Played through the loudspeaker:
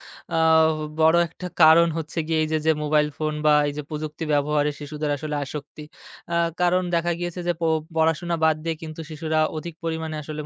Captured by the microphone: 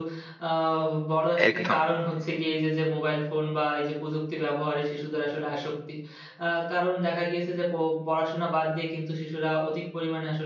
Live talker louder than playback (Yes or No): Yes